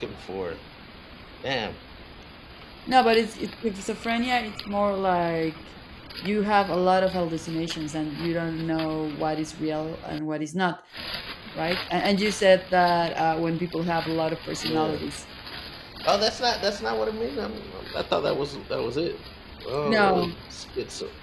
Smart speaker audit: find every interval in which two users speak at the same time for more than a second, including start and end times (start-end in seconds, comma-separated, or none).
none